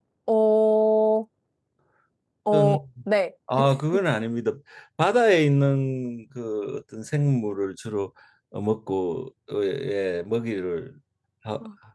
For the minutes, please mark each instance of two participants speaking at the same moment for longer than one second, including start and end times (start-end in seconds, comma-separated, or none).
none